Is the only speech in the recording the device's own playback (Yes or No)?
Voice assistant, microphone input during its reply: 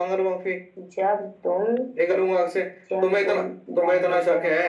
Yes